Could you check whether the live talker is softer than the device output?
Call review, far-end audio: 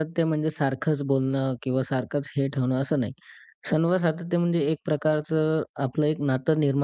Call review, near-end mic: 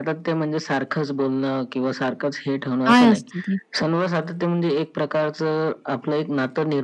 No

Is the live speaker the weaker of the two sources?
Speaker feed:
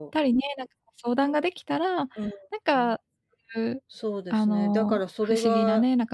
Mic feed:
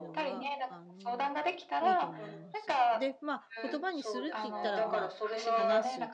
Yes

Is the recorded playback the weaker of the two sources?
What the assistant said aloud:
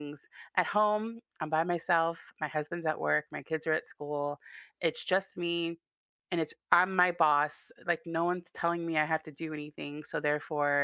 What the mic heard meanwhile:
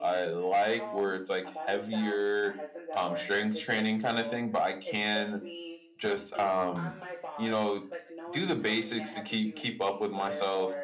Yes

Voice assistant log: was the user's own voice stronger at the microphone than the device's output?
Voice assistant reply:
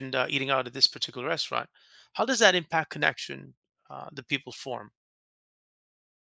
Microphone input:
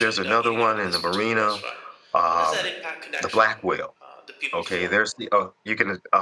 Yes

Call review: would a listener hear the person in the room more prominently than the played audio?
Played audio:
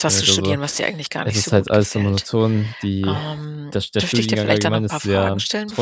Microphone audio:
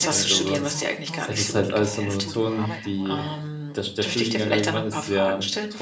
No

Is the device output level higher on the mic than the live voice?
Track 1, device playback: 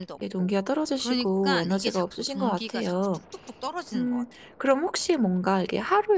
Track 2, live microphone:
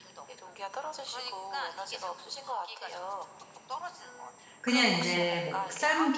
No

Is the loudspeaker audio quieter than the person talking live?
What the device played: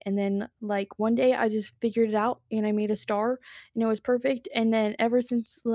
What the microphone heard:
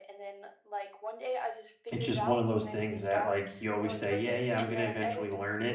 Yes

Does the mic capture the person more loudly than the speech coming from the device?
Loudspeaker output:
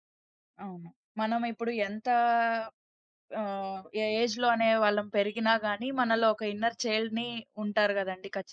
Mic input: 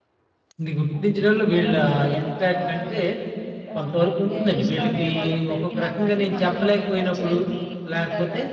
Yes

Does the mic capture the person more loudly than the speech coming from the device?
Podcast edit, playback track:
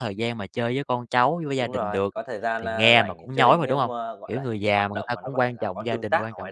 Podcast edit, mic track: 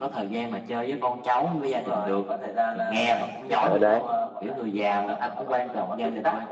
Yes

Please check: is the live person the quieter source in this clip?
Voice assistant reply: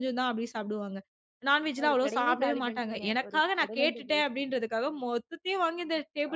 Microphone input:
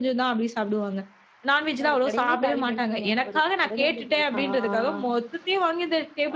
Yes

